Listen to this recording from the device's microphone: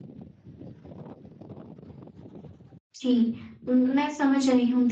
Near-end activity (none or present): present